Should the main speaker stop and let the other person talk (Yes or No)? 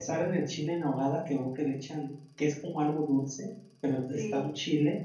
No